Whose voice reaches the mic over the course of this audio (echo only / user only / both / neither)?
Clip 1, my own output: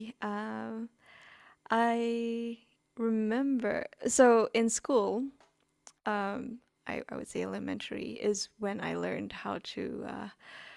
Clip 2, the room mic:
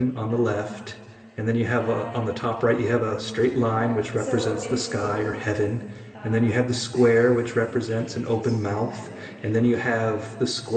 both